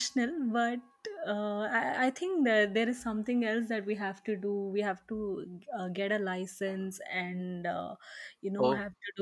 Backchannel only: Yes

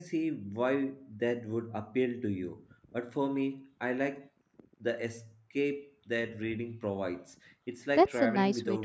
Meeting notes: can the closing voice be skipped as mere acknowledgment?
No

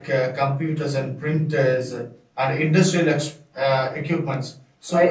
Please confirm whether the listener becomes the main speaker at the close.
Yes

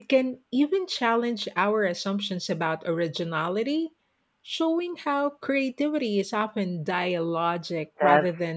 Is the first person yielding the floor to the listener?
Yes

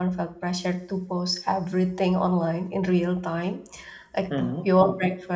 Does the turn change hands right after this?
No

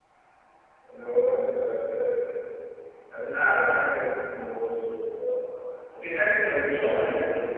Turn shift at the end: No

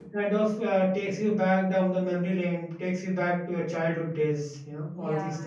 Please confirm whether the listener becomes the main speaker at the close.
Yes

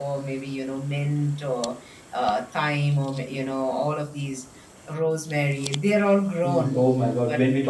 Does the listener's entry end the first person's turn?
Yes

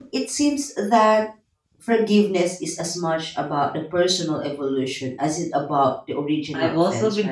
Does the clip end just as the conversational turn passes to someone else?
Yes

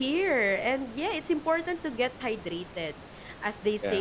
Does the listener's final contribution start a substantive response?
No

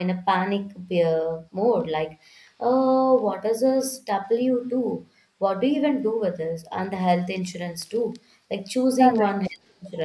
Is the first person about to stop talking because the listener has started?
Yes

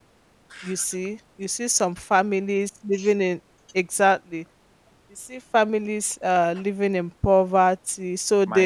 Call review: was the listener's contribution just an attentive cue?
Yes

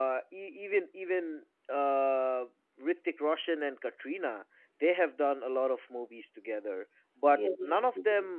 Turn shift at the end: No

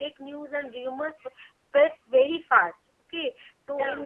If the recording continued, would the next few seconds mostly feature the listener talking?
No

